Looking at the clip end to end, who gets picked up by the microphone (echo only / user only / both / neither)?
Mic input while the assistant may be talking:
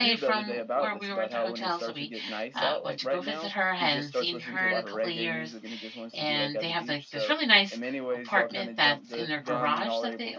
both